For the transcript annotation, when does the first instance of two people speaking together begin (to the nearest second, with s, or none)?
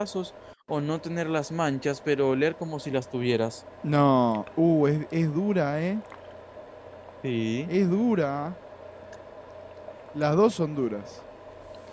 none